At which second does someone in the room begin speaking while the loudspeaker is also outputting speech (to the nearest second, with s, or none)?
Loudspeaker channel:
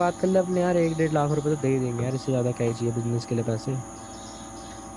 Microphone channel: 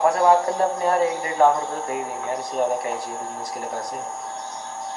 none